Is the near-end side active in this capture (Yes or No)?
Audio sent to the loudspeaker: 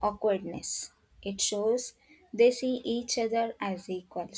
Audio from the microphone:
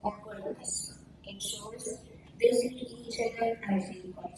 No